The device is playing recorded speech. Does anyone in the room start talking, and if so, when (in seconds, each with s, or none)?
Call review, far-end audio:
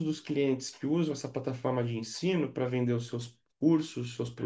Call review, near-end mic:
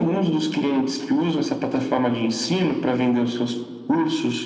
none